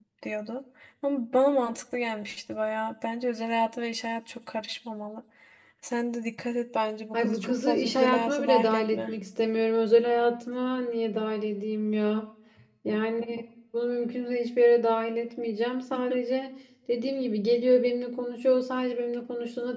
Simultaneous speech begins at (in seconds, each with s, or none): 7.1 s